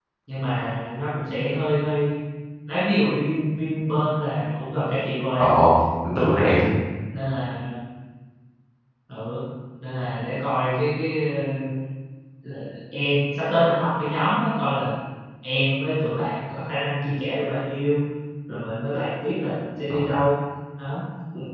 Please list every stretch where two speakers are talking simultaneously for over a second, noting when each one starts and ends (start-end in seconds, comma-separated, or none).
none